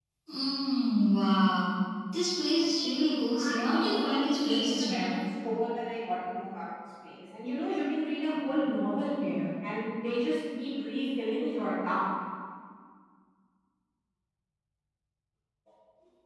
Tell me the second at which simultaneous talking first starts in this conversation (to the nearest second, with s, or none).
3 s